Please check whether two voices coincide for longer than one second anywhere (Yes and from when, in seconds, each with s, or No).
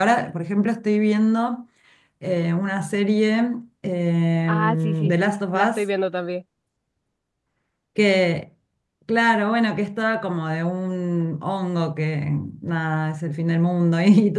Yes, from 4.5 s